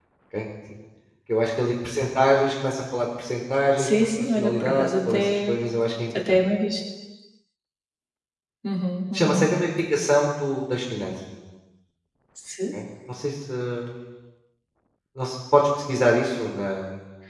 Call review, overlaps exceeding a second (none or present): present